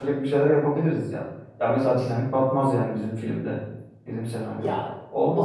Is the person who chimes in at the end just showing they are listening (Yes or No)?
No